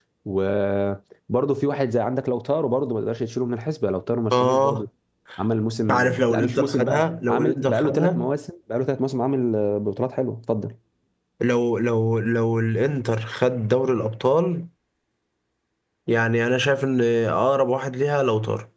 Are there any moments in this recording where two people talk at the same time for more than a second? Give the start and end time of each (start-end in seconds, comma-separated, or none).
5.9-8.2